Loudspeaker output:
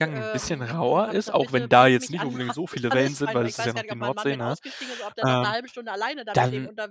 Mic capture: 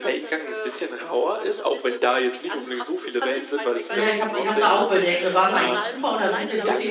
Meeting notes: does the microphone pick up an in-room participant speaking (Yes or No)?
Yes